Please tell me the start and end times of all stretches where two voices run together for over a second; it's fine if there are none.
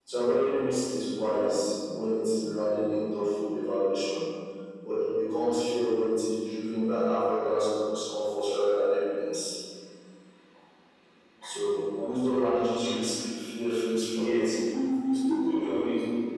none

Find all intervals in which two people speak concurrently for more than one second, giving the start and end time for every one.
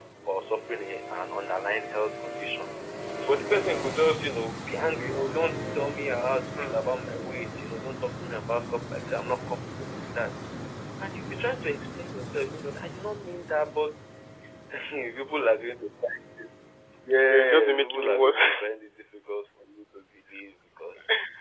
17.3-18.6

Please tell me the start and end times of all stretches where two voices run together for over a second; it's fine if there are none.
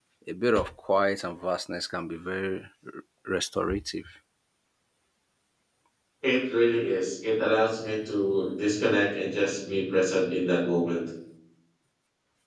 none

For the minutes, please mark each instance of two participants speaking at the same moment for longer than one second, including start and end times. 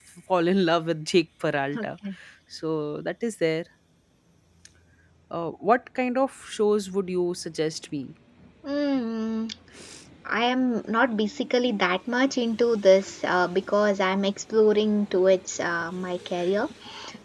none

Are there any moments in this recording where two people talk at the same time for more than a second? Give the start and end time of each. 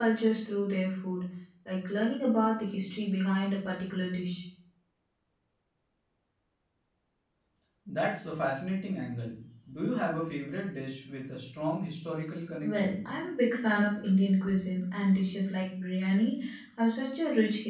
none

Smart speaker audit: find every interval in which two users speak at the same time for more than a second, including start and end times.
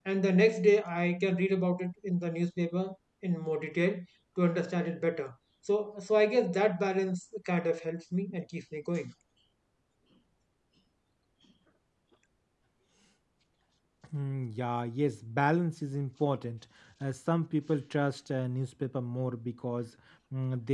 none

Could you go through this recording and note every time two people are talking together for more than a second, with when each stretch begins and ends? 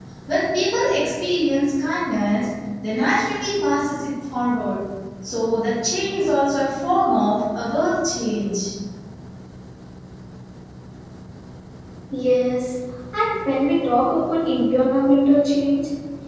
none

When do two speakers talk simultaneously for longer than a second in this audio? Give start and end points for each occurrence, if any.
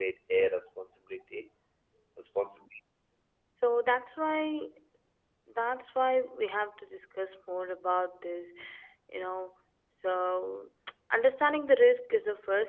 none

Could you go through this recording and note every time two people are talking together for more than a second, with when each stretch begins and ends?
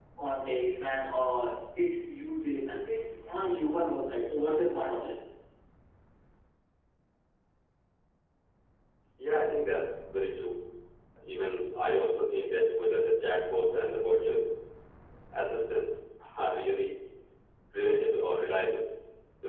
none

